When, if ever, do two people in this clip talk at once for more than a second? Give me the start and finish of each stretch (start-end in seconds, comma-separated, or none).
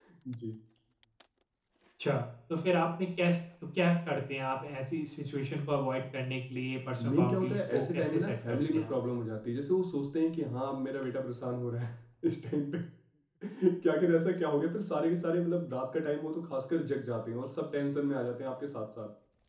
7.0-8.9